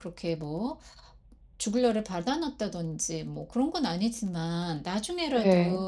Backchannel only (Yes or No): Yes